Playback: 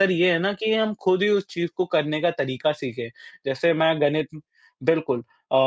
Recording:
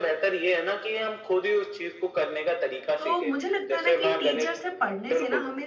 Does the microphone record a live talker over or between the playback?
Yes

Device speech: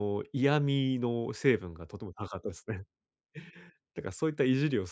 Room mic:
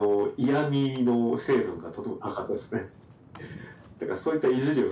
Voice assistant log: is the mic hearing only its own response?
Yes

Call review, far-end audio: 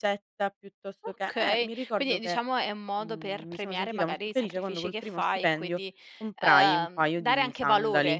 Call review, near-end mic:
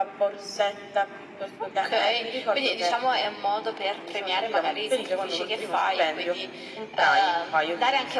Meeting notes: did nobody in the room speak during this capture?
Yes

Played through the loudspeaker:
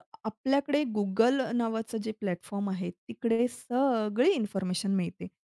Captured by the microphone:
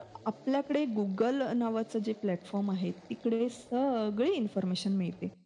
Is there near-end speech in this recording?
No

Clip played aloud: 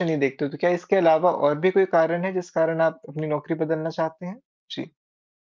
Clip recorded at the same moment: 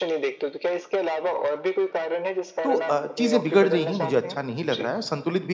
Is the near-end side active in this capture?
Yes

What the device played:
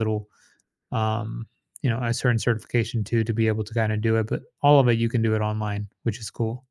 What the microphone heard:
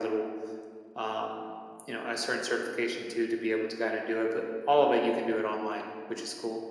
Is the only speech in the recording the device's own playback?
Yes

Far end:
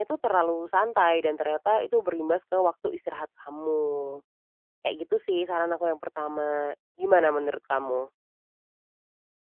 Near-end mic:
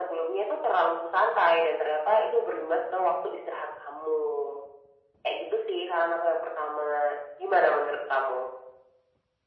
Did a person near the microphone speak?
No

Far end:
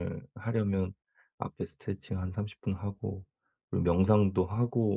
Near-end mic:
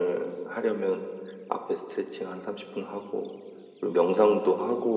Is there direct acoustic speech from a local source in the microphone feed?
No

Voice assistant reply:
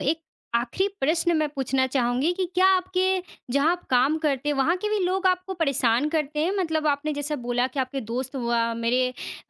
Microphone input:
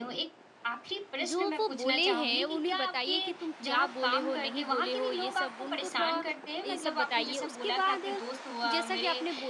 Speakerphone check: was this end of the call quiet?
No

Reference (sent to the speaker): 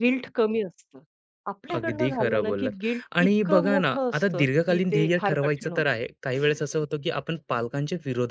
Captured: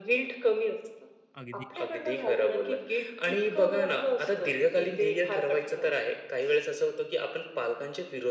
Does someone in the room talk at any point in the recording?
Yes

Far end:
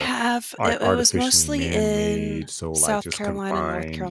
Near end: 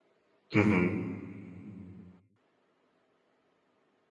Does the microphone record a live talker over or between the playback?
Yes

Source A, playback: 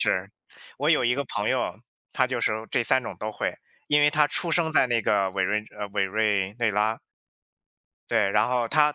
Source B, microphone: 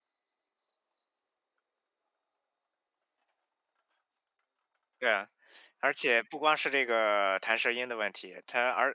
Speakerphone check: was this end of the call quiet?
No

